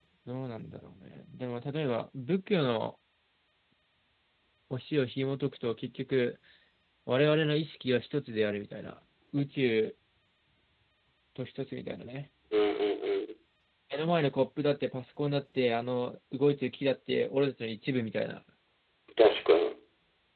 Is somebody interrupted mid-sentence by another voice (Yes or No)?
No